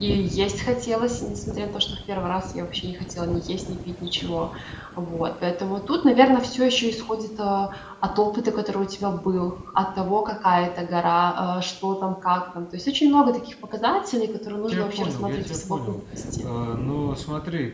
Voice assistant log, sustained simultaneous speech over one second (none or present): present